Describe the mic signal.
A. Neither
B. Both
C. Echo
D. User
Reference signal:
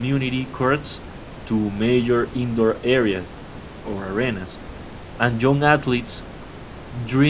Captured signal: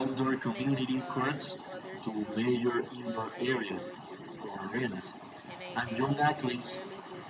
B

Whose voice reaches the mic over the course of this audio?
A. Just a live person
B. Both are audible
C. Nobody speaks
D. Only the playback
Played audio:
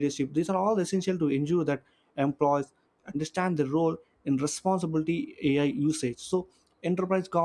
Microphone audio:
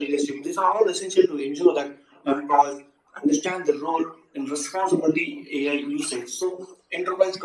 D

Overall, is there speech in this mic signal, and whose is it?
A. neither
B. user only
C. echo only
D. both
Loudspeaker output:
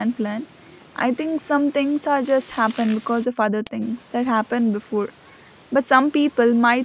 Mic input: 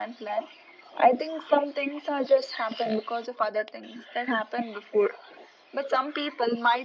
C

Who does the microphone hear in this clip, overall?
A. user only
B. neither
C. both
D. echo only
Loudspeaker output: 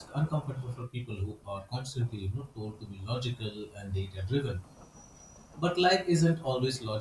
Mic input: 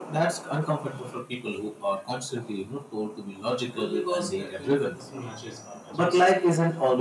C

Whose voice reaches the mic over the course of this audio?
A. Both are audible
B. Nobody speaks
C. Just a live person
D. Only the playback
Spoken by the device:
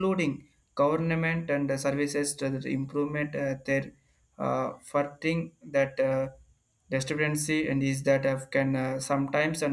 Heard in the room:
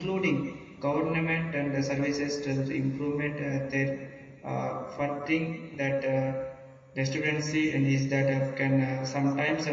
D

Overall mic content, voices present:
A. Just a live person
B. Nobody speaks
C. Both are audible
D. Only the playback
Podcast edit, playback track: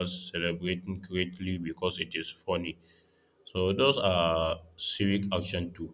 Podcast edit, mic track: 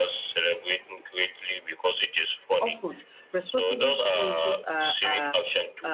C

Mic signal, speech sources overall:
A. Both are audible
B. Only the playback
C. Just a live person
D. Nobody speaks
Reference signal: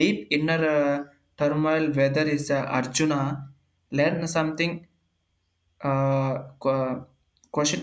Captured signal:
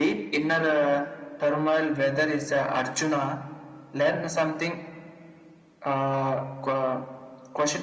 B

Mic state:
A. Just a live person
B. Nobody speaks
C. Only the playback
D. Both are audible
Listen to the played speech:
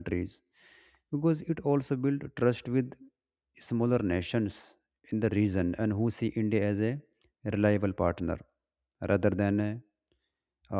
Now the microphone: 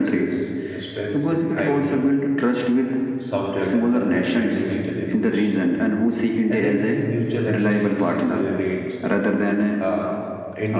D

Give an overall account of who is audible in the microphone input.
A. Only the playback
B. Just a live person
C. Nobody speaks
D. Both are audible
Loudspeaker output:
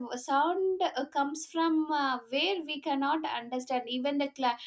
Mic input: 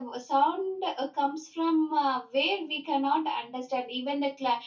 A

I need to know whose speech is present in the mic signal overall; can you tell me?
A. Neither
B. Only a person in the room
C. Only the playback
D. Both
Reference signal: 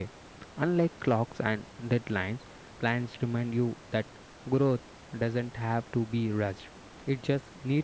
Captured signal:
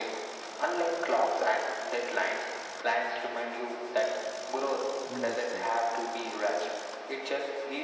D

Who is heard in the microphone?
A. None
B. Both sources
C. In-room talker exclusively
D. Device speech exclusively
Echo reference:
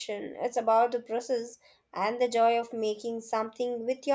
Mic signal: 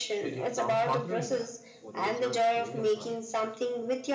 B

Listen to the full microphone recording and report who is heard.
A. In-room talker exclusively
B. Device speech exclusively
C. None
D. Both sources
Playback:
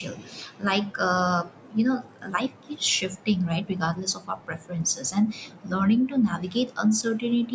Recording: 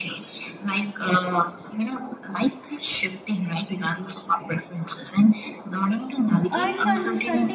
D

